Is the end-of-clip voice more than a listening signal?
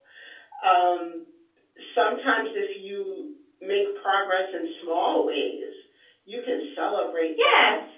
Yes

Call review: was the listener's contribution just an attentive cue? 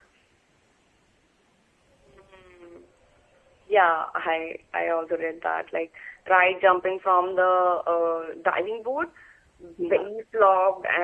Yes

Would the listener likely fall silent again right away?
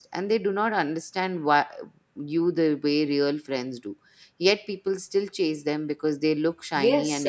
No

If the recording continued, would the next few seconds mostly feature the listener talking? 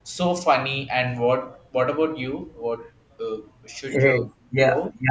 Yes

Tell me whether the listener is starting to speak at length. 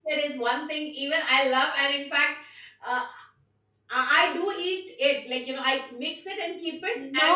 Yes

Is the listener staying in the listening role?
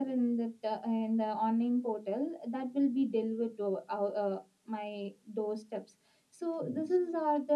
Yes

